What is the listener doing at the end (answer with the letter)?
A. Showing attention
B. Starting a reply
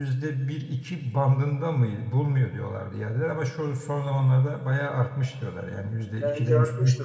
B